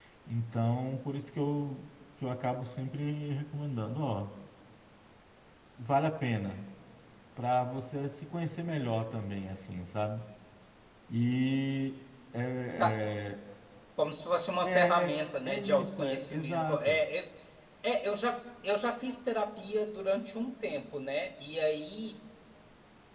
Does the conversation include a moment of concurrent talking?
Yes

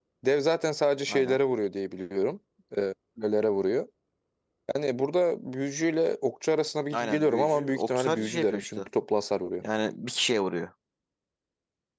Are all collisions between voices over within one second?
No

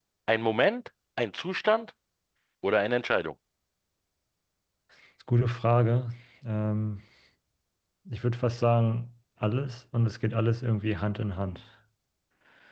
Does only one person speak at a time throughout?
Yes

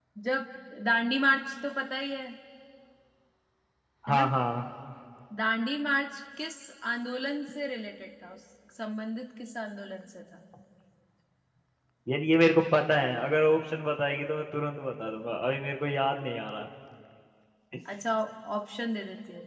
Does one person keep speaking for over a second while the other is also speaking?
No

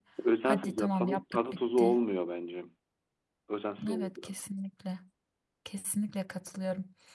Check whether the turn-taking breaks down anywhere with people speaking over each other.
Yes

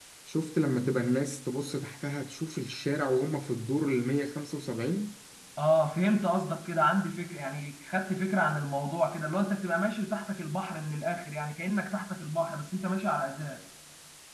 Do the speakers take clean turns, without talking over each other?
Yes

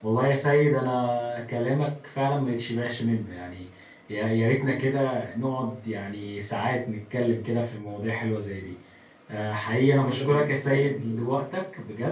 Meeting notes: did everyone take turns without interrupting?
No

